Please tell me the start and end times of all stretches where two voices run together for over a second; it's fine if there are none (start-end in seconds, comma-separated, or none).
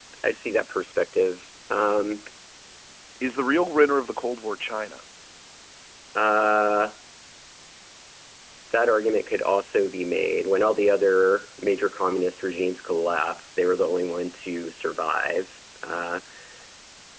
none